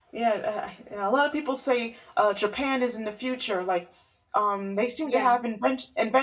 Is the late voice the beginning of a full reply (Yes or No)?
No